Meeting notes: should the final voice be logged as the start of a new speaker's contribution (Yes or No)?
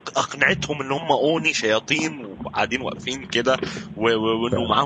No